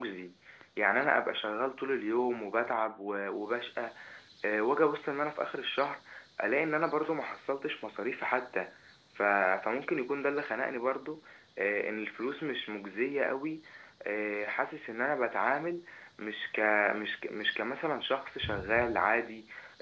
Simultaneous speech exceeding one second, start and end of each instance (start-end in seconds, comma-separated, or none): none